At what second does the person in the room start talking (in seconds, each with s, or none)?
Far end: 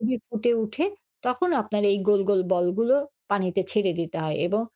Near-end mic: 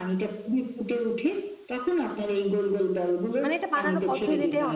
3.4 s